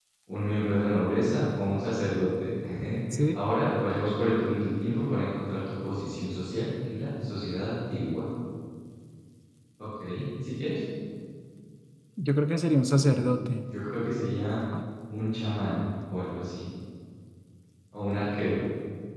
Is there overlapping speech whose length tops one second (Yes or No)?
No